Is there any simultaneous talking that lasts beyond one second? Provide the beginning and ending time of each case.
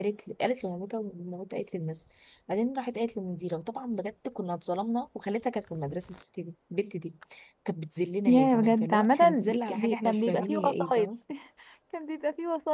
8.3-11.1

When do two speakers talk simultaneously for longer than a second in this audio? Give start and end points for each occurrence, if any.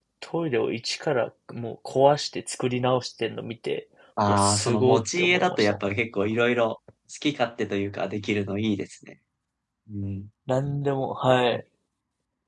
4.3-5.8

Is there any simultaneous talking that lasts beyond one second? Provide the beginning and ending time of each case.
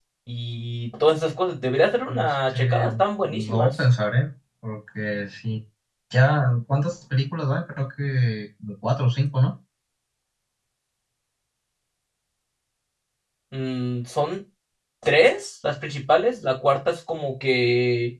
2.1-3.8

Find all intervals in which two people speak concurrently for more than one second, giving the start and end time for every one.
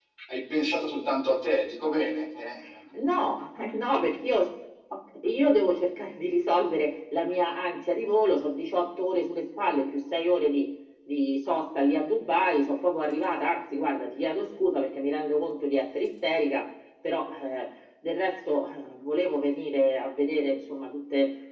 none

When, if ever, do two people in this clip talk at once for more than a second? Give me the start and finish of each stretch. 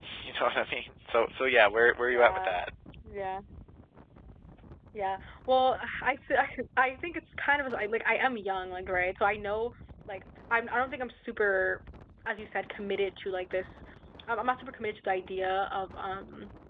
none

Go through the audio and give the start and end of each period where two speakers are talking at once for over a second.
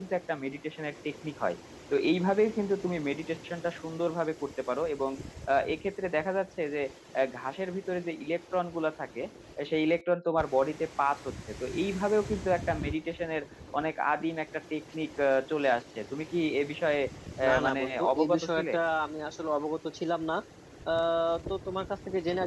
17.4-18.7

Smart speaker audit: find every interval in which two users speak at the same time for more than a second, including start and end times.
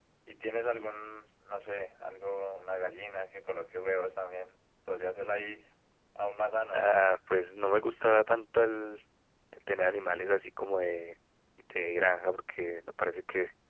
none

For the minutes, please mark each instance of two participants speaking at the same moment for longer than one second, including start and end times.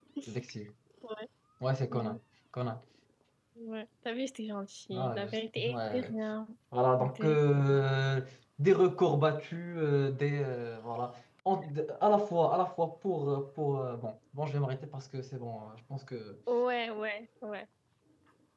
4.9-6.1

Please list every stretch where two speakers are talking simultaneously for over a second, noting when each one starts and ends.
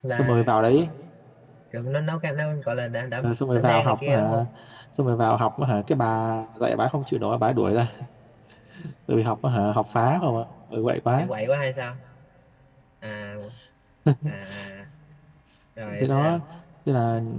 3.2-4.5

